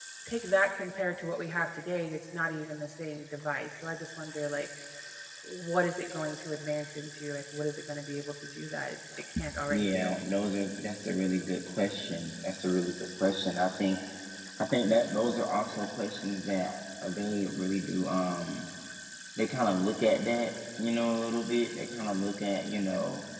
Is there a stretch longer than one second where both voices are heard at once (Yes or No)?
No